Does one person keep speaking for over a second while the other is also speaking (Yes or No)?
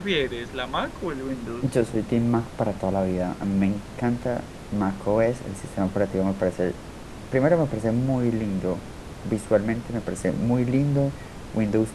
No